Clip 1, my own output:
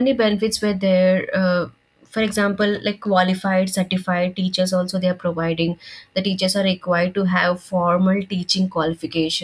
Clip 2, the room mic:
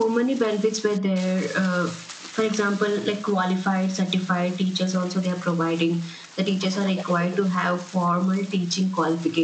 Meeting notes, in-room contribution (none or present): none